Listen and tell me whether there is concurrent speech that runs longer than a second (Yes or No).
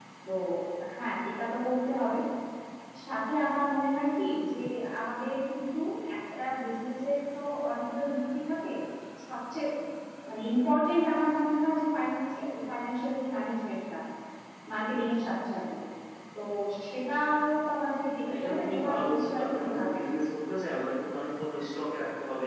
Yes